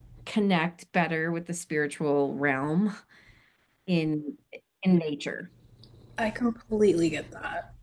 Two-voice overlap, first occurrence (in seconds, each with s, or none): none